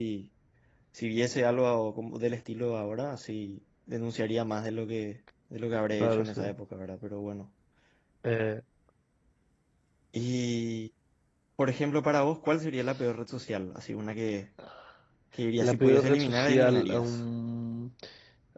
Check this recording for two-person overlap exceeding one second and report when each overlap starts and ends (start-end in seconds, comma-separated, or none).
15.6-17.2